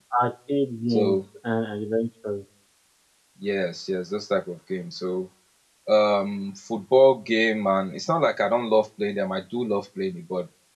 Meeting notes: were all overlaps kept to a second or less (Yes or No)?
Yes